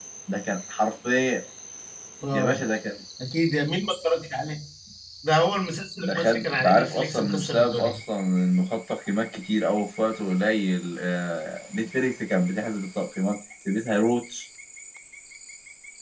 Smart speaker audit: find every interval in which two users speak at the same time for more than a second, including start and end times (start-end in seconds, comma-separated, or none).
6.0-8.0